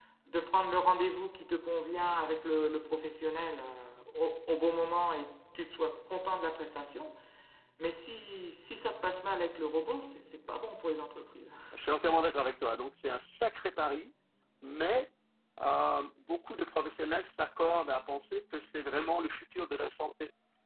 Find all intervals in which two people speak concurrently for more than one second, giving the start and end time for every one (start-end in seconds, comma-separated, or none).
none